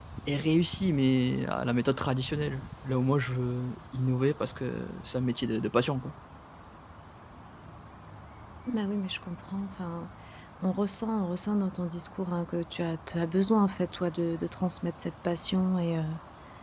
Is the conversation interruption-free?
Yes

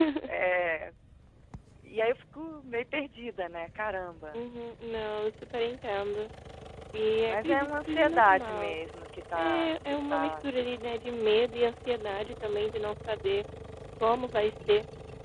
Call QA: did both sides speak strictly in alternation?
No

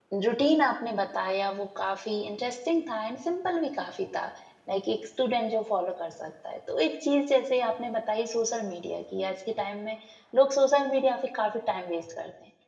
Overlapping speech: No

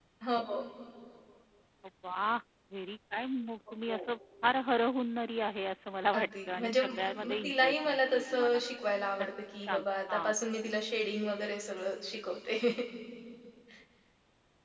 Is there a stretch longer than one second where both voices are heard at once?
Yes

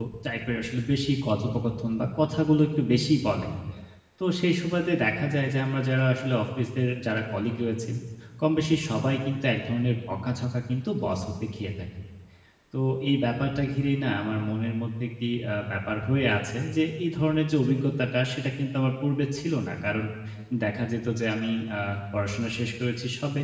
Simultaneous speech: No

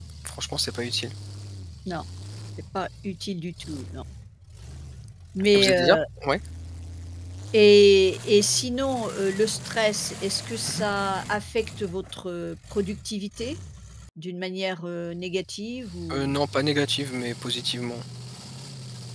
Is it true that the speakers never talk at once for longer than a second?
Yes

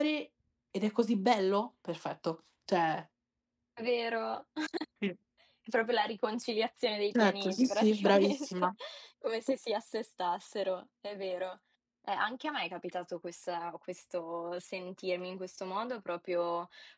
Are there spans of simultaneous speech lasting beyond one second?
Yes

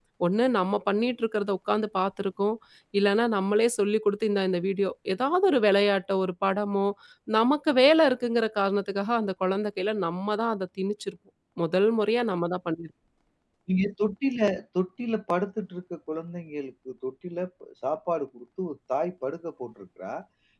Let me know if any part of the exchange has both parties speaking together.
No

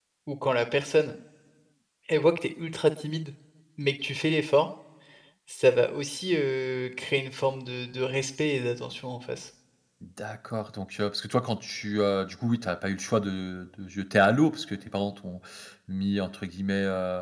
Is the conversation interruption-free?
Yes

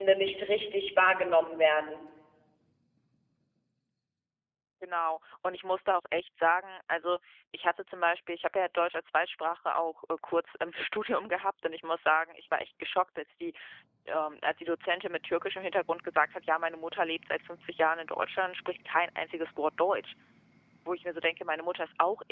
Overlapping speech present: No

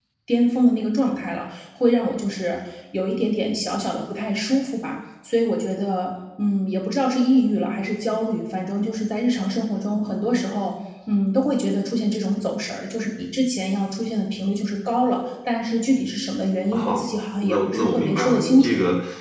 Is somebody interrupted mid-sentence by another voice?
Yes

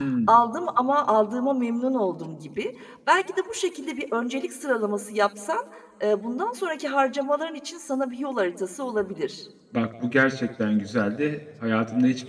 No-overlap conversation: Yes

